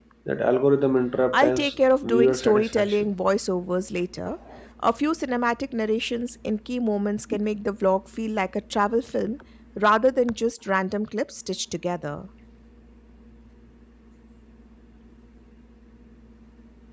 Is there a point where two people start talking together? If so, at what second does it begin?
1 s

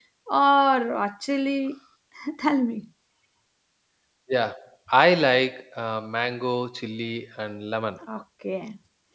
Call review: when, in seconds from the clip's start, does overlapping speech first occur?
none

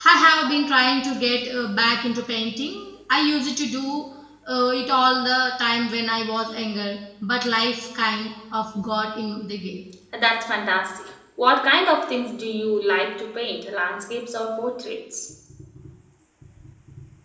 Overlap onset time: none

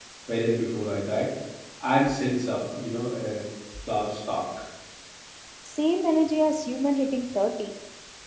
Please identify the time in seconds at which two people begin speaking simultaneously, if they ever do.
none

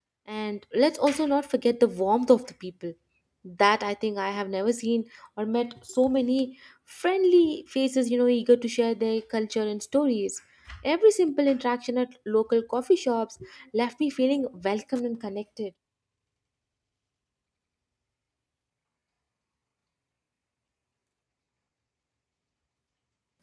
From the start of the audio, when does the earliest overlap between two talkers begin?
none

